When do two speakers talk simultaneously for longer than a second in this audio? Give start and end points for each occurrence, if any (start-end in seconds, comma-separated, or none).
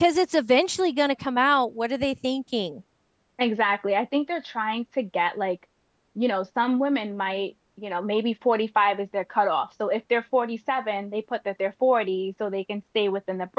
none